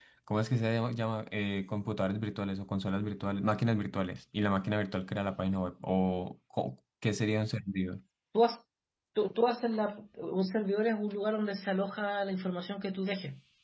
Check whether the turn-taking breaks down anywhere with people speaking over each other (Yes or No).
No